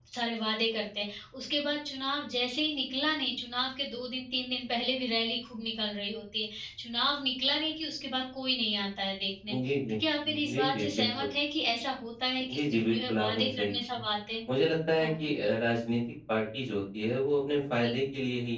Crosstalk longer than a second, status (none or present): present